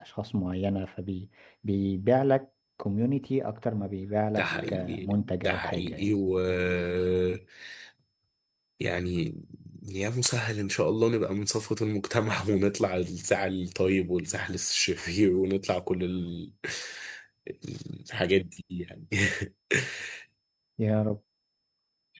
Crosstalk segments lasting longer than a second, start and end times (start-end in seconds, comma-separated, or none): 4.4-6.1